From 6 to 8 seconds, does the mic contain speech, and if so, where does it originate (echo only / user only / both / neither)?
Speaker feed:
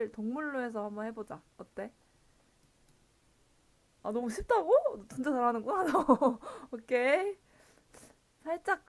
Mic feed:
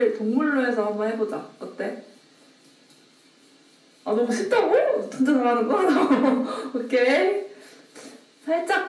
echo only